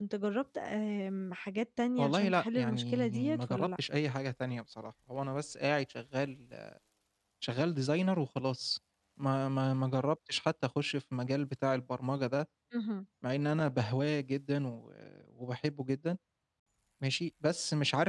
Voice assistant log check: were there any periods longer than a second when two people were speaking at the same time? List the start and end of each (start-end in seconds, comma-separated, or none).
2.0-3.7